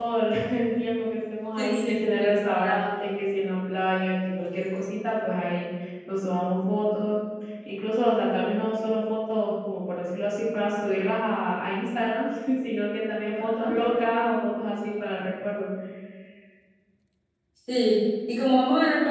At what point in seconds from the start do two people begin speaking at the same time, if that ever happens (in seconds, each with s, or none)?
1.6 s